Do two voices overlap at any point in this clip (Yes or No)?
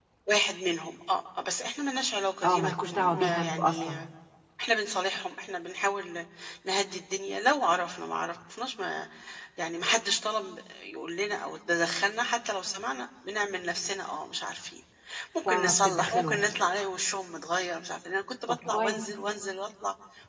Yes